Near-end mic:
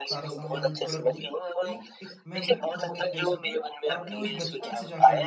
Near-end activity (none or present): present